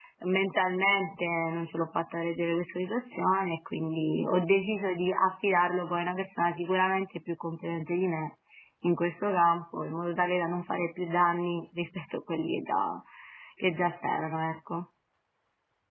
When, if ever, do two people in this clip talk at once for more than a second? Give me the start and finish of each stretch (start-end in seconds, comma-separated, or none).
none